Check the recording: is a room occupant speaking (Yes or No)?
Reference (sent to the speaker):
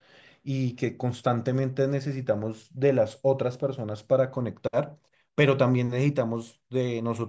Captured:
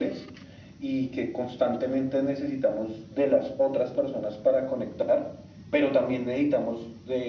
No